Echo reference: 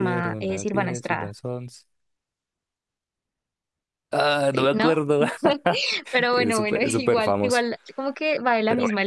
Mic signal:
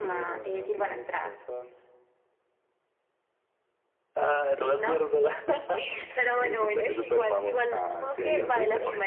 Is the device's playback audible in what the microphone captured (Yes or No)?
Yes